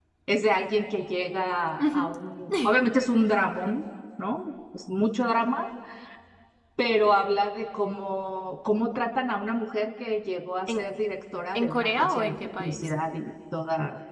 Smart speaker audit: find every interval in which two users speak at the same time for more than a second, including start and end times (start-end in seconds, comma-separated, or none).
11.5-12.9